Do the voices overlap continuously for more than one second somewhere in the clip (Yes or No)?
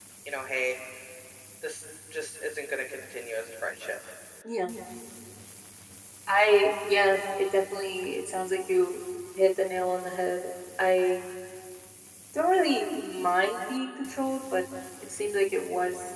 No